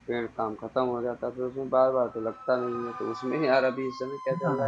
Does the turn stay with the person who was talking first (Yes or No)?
Yes